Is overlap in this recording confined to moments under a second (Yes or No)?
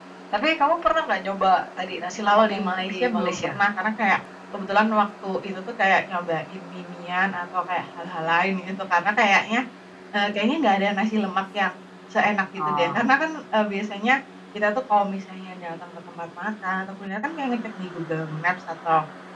No